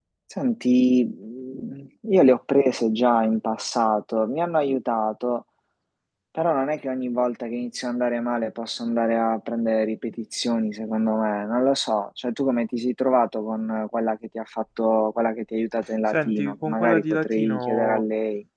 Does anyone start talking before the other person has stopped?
Yes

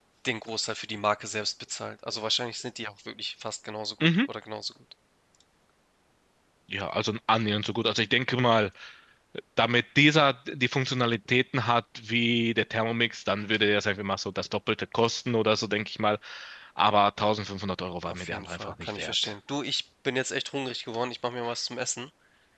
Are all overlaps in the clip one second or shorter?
No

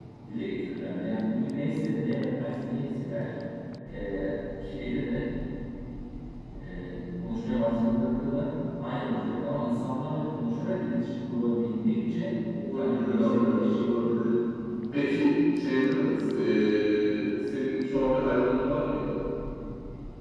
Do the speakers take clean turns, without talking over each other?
No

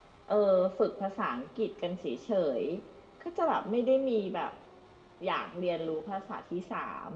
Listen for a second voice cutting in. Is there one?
No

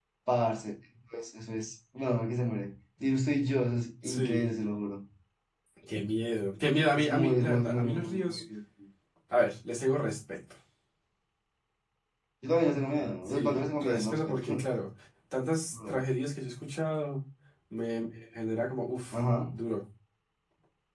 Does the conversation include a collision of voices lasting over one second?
Yes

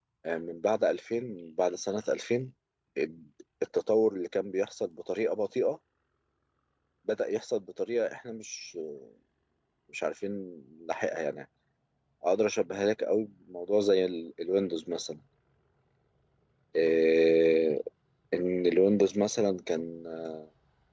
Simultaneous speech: No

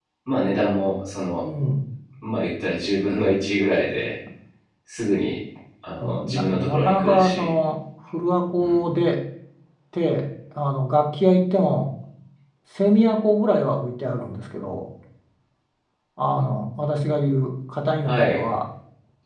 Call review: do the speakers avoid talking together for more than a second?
No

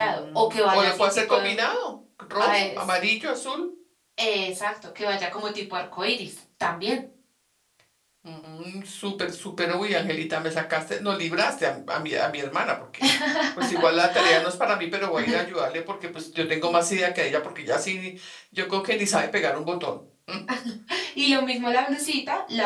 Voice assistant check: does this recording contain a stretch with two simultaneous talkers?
Yes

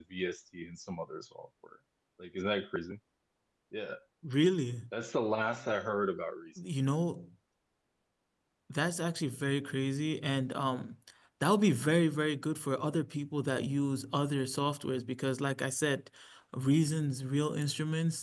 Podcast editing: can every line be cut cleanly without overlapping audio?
Yes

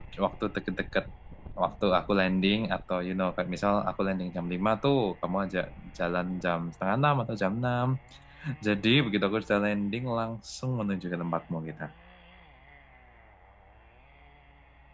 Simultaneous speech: No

